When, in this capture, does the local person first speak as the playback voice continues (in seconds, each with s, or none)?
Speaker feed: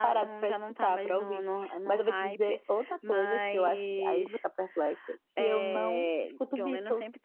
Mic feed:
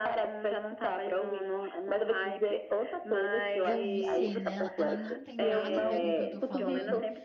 3.6 s